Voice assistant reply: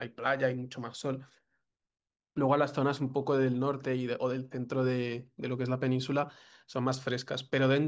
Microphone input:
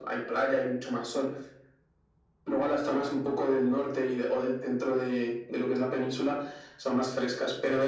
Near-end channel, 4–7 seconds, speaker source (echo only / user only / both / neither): echo only